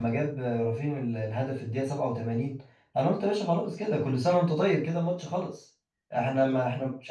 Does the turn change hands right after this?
No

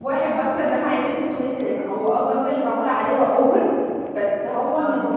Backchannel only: Yes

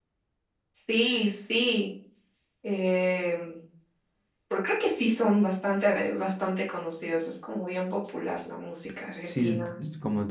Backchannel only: No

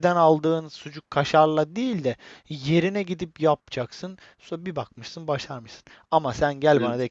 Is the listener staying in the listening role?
Yes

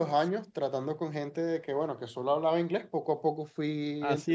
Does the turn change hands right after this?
Yes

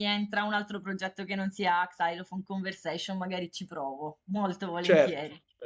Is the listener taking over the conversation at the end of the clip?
Yes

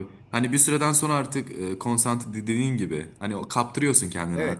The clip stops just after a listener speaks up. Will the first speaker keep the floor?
No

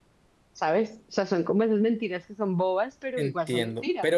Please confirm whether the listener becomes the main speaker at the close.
Yes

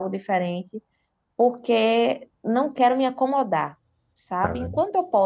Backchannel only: Yes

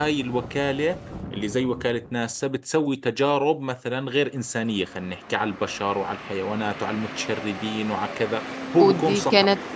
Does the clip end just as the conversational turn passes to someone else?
Yes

